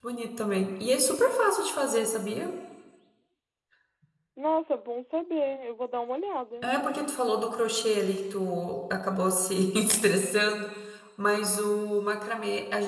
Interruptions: none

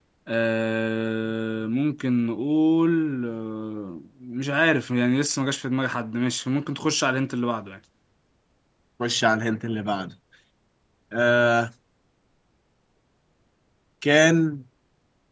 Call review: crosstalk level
none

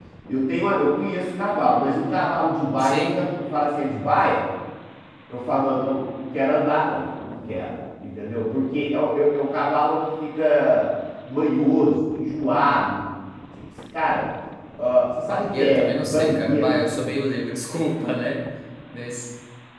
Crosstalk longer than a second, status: present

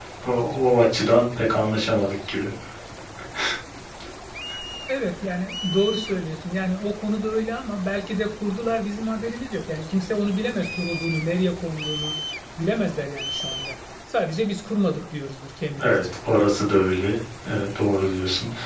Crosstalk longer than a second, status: none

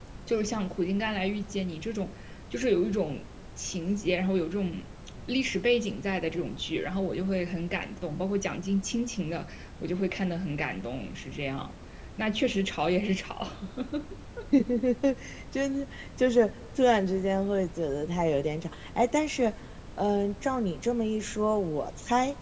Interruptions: none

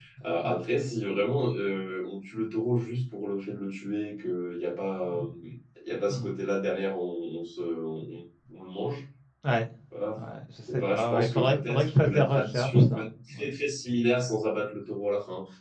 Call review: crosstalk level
present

